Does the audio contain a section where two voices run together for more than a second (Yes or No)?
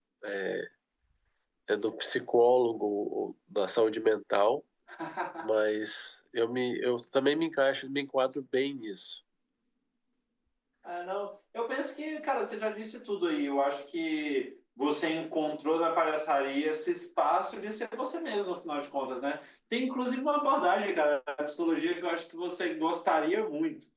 No